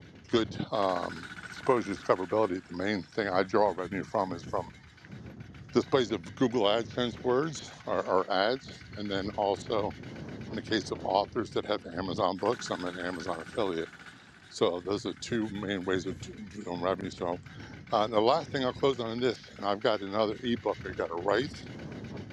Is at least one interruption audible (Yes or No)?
No